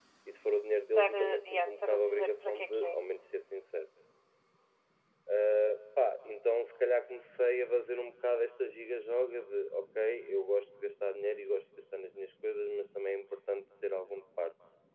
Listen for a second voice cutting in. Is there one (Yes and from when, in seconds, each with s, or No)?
Yes, from 1.0 s